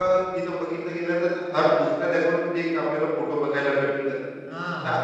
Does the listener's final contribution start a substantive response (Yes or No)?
Yes